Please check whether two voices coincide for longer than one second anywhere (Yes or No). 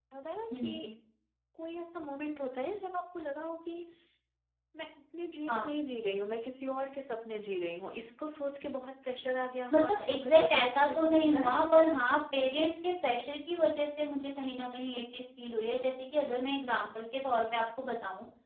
Yes